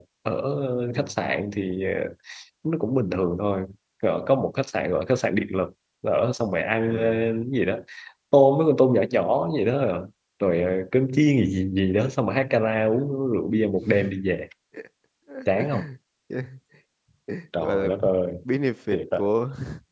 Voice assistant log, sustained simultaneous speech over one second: none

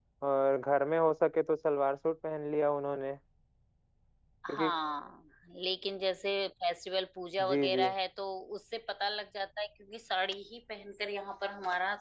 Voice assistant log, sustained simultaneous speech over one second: none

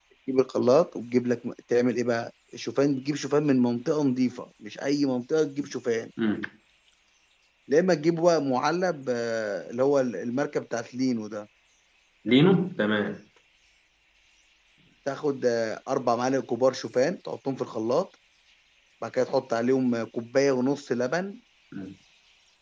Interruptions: none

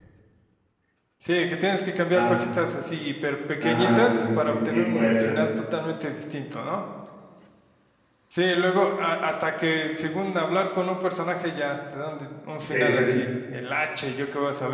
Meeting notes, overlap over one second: present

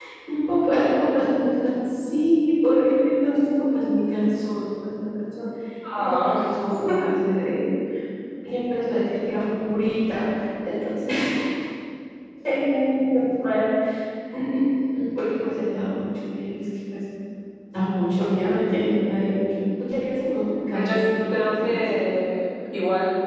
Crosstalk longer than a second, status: present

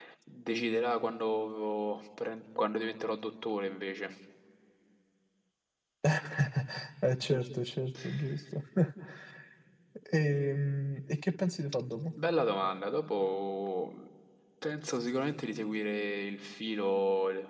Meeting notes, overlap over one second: none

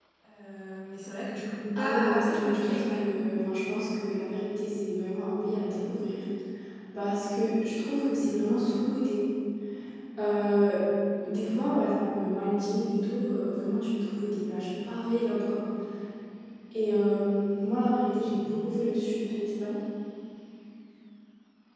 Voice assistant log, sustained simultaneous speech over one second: present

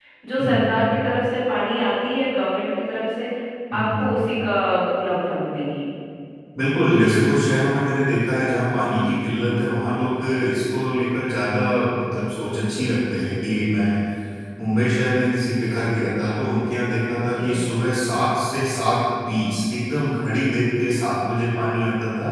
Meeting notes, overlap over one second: none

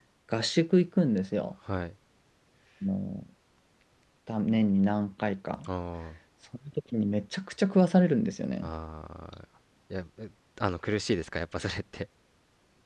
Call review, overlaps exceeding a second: none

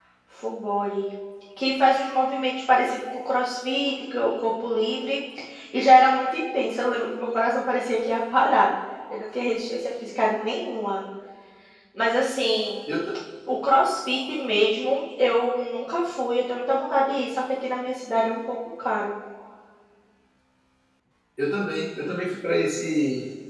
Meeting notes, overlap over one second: none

